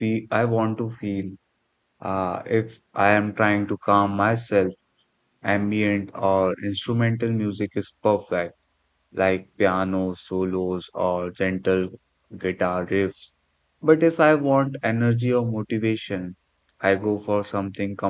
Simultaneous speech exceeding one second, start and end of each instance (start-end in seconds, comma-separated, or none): none